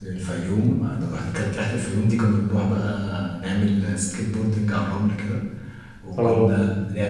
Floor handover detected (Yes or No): No